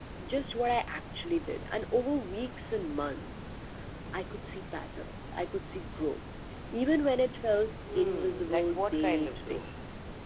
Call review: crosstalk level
present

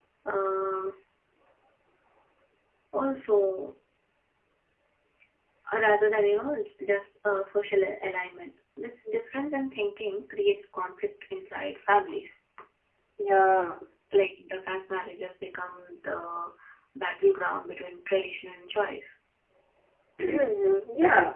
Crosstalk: none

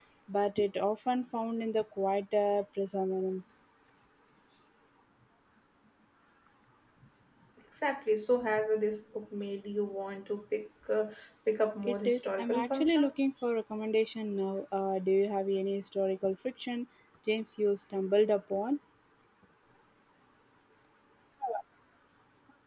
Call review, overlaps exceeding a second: present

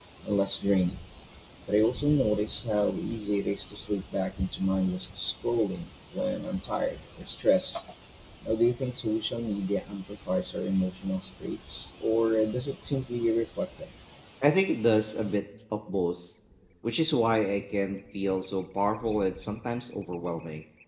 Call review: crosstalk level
none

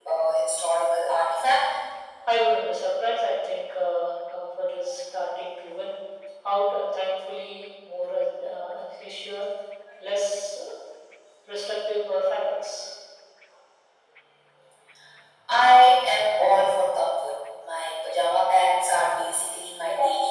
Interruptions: none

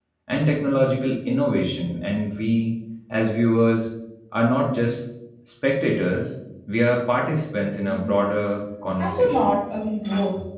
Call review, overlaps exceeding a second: none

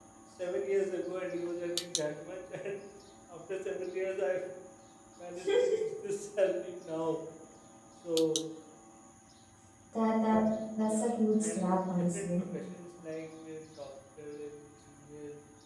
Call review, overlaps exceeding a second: present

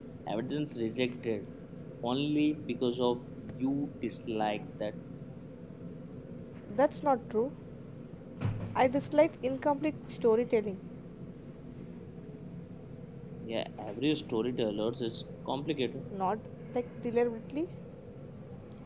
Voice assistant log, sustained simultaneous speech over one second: none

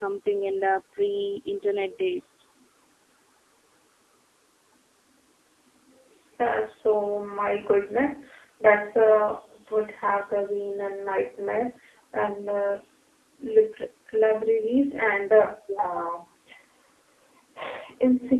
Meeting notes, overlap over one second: none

